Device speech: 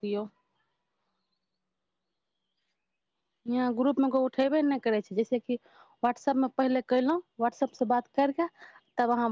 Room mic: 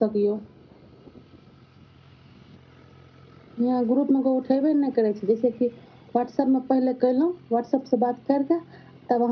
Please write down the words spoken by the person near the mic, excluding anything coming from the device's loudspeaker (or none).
none